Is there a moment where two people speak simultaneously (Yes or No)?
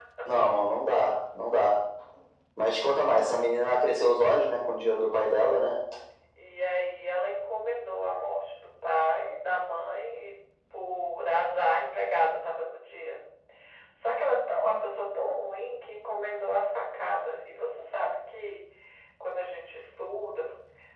No